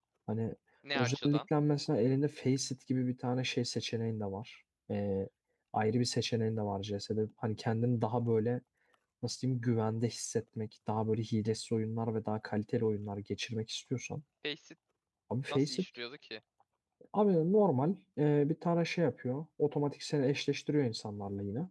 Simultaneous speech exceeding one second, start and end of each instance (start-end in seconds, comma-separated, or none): none